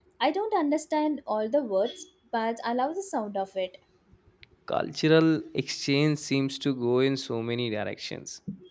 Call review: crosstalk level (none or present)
none